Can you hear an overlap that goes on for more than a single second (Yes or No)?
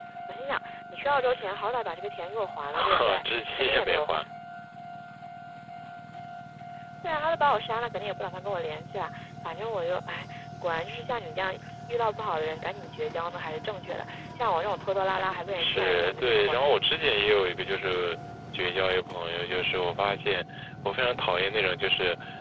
Yes